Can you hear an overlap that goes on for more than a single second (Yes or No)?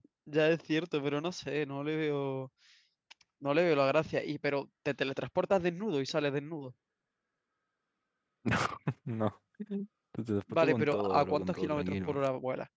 Yes